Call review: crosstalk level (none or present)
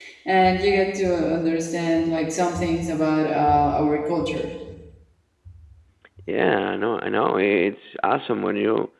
none